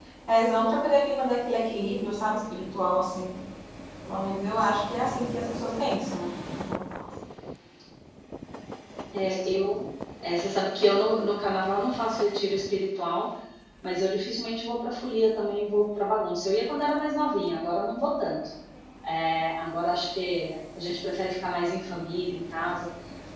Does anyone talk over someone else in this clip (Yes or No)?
No